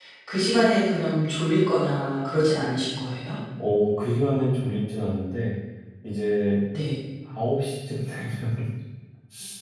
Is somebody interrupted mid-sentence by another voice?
No

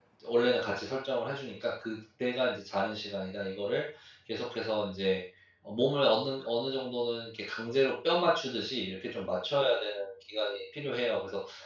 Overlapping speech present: No

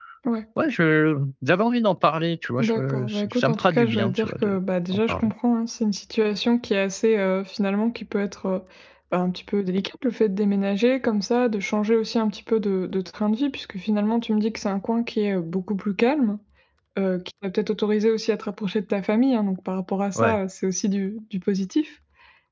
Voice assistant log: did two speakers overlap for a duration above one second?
Yes, from 2.6 s

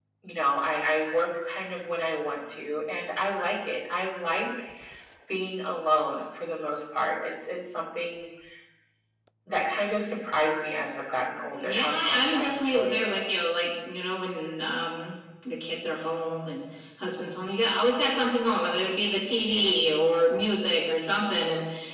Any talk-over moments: Yes, from 11.6 s

